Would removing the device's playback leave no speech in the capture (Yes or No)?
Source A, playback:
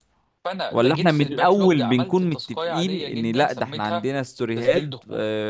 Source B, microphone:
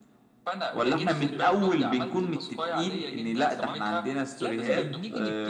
No